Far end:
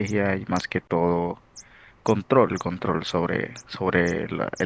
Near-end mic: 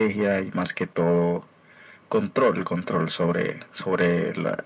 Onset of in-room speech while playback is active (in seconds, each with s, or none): none